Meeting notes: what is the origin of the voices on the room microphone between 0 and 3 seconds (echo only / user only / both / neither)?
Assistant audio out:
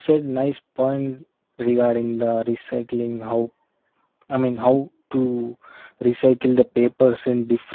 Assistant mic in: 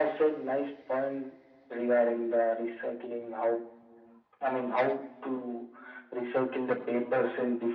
echo only